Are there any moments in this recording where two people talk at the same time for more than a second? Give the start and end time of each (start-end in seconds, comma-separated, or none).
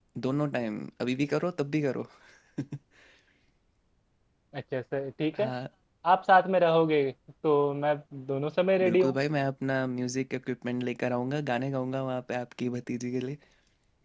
none